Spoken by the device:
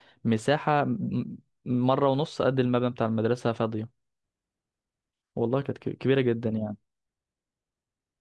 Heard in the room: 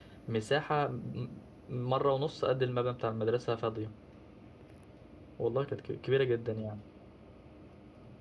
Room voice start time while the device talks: none

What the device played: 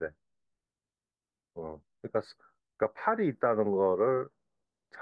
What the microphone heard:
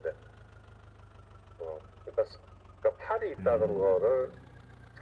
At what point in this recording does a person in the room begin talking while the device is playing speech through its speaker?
3.4 s

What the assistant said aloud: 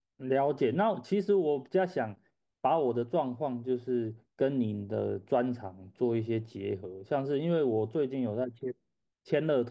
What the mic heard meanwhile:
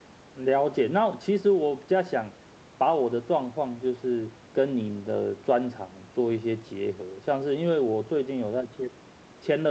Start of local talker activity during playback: none

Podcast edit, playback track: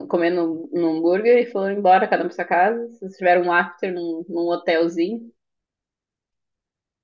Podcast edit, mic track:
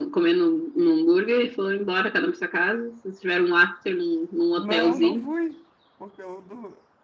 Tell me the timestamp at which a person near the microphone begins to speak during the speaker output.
4.5 s

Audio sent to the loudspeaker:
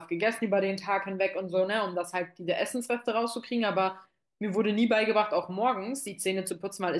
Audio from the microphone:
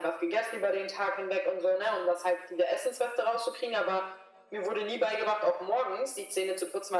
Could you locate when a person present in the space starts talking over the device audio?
none

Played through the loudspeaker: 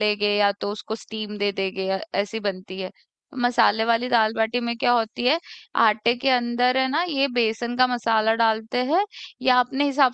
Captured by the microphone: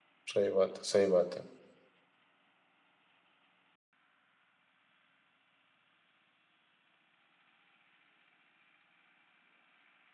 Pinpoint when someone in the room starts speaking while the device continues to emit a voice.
0.3 s

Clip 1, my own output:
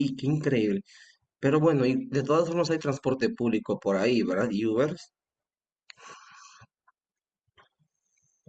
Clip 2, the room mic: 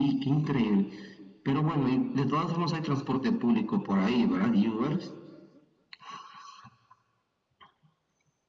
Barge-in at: none

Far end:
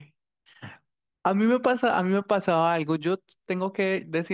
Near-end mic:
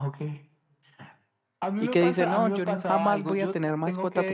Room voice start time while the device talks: 1.8 s

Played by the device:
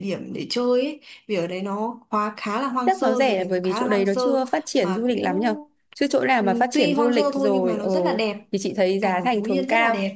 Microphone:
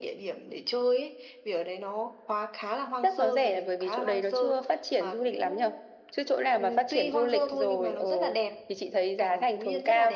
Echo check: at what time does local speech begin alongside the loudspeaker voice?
none

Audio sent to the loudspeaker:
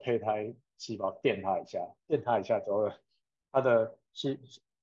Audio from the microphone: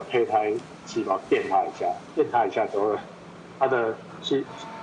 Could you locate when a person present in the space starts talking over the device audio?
none

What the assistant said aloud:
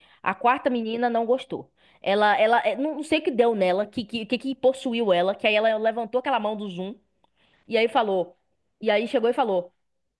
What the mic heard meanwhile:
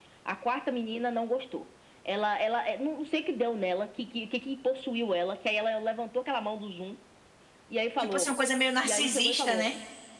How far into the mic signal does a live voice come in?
8.0 s

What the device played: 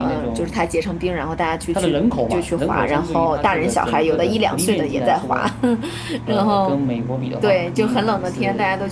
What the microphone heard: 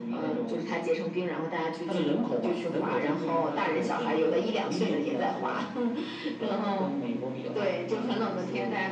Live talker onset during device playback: none

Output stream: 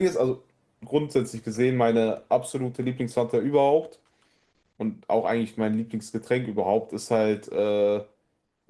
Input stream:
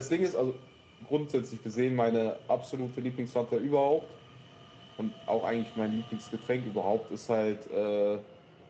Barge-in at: none

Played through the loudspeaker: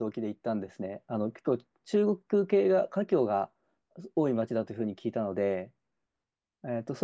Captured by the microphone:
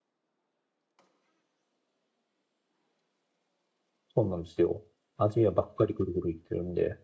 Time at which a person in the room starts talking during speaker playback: 4.1 s

